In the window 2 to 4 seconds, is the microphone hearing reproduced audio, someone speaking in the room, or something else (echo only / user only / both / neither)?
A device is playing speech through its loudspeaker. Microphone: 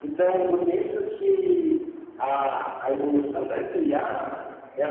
echo only